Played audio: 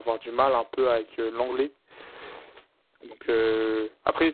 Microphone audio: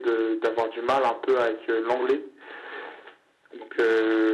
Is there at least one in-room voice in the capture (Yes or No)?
No